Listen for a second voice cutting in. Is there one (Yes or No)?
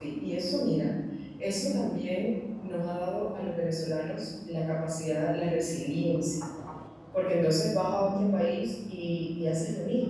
No